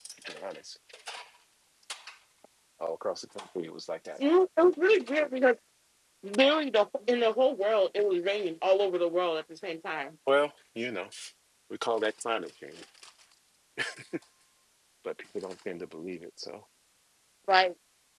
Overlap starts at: none

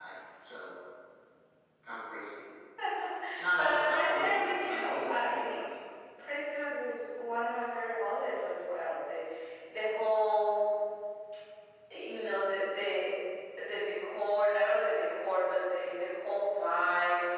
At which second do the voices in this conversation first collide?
3.6 s

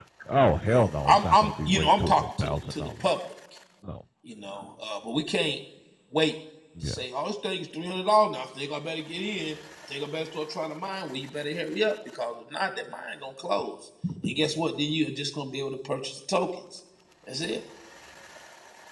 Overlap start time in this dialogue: 0.7 s

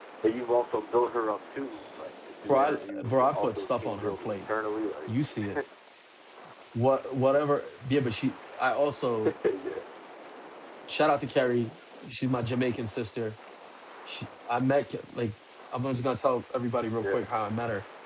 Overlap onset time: 2.5 s

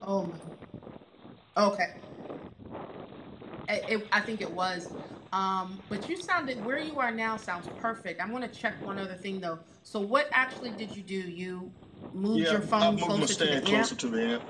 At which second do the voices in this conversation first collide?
12.3 s

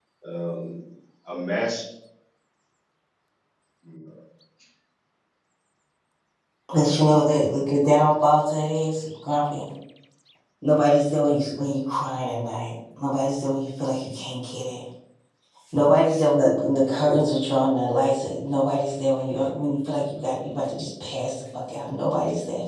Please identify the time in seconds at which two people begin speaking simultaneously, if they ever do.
none

